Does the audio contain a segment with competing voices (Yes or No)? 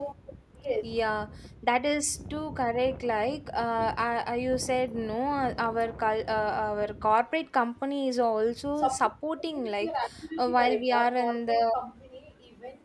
Yes